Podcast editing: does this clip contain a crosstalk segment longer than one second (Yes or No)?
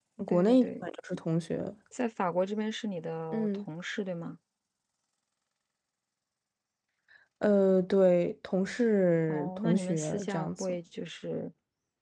Yes